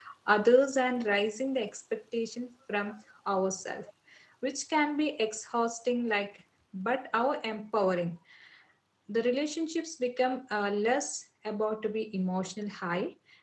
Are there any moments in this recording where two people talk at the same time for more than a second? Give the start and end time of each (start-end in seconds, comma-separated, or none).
none